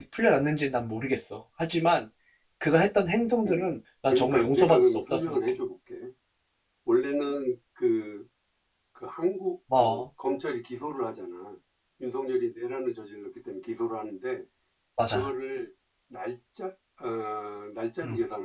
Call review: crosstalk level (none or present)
present